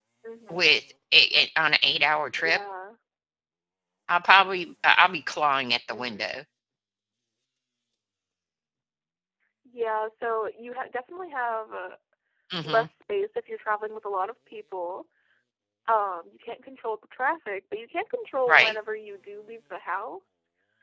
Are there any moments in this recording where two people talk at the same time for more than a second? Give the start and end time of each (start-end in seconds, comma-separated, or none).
none